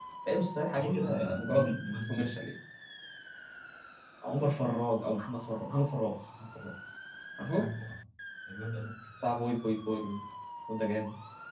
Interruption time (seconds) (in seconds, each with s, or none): 0.8 s